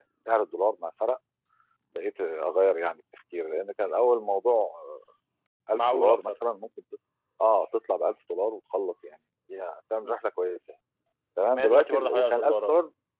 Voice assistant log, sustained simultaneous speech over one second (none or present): present